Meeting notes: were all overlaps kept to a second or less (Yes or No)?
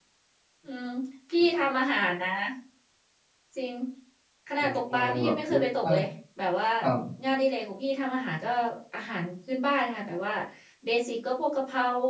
No